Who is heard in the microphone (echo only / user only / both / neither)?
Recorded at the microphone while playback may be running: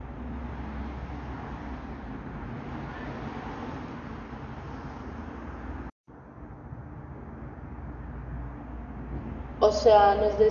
user only